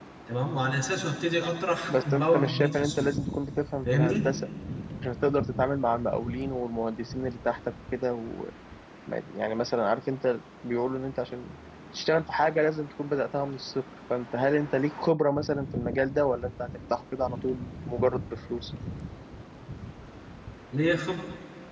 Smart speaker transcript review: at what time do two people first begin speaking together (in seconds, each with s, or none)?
1.9 s